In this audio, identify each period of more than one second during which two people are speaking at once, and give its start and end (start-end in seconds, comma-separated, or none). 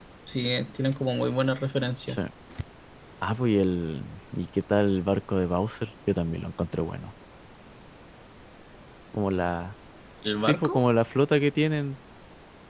none